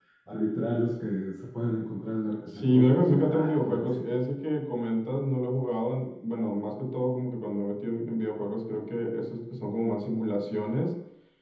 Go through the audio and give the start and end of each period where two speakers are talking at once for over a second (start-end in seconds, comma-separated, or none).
2.4-4.1